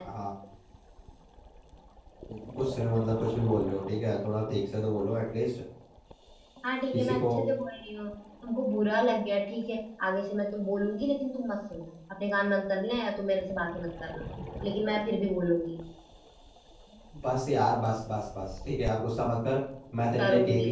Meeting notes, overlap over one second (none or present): none